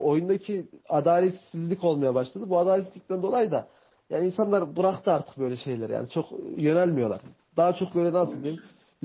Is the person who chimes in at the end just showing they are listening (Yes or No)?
Yes